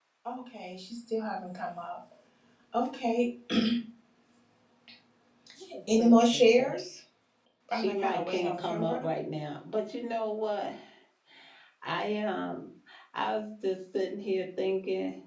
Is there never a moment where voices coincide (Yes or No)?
No